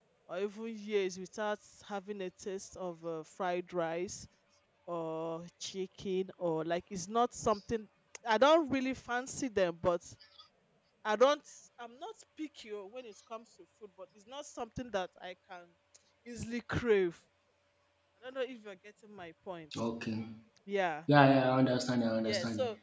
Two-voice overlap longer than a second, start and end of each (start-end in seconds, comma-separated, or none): none